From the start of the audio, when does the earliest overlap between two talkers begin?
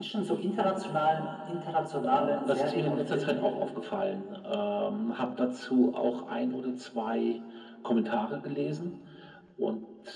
2 s

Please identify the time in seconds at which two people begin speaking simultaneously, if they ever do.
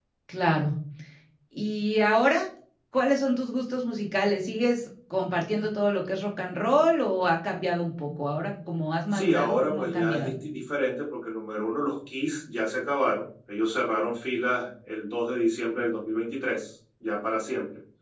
9 s

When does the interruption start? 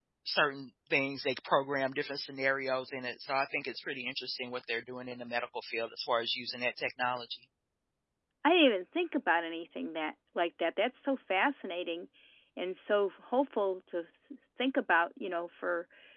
none

